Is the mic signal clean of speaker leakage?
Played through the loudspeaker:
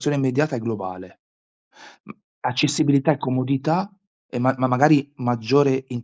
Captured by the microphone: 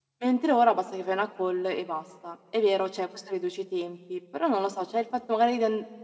Yes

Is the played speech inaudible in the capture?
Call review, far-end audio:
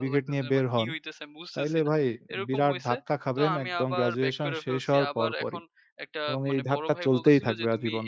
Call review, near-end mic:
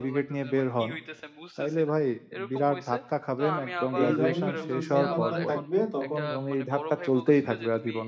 No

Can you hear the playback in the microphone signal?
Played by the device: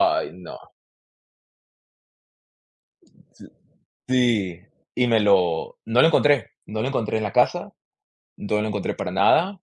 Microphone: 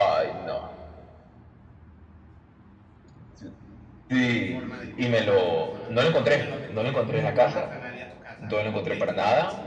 Yes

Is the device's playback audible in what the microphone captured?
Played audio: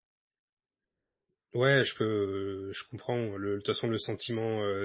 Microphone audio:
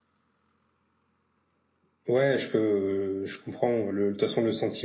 Yes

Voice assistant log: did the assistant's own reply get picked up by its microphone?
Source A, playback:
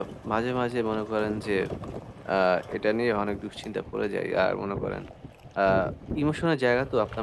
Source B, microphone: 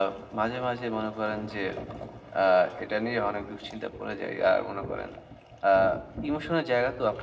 Yes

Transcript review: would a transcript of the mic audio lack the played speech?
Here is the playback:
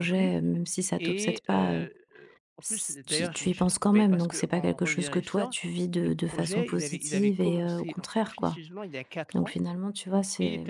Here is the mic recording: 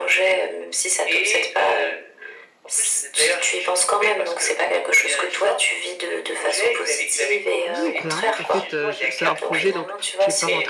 No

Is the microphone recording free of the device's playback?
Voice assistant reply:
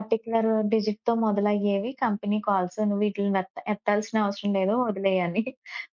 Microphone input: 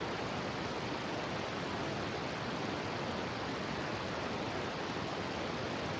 Yes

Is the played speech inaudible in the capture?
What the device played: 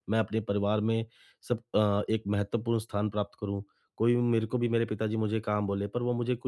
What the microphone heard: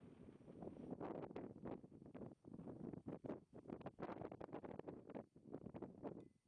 Yes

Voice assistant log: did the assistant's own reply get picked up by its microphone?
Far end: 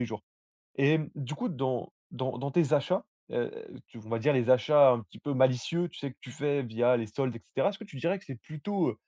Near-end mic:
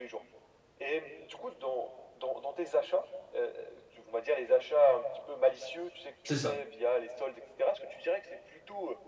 Yes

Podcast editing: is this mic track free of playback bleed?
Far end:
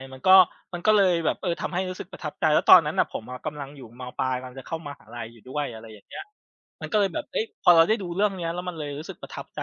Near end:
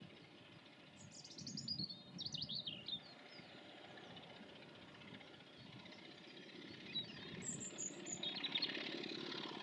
Yes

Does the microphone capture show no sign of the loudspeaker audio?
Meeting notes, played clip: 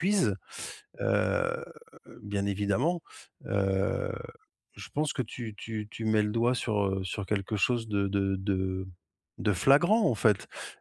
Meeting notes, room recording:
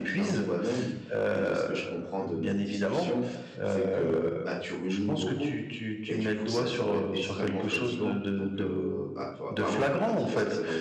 No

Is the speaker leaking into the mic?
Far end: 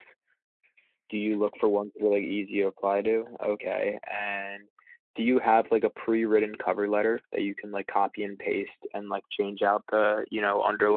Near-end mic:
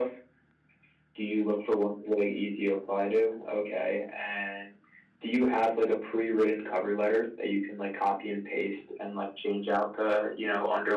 Yes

